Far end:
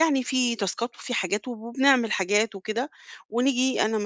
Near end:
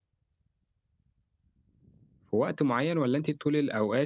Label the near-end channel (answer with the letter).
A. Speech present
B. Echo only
A